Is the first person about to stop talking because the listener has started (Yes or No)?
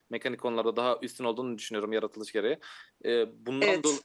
No